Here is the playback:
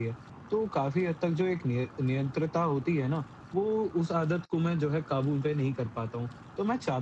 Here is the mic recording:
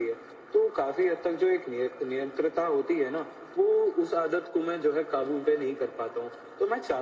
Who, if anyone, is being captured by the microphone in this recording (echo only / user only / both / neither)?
echo only